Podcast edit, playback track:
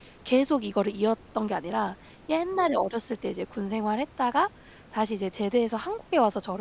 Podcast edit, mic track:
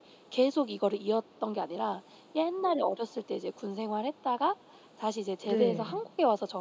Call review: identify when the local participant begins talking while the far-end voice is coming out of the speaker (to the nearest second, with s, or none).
5 s